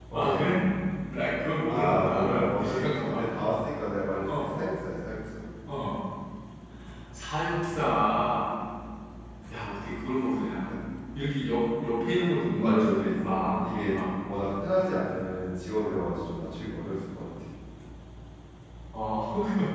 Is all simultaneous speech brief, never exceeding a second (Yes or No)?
No